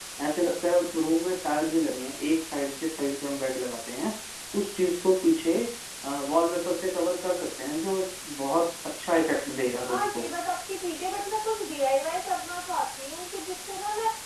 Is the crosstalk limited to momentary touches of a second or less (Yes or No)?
Yes